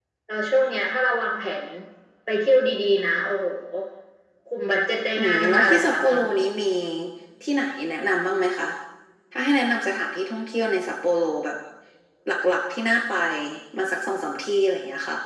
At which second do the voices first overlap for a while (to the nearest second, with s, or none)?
5 s